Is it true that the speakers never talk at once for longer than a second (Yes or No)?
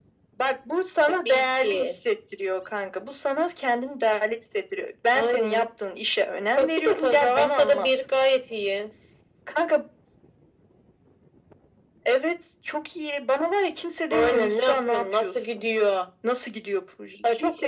No